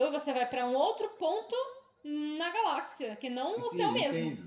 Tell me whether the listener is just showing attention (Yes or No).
No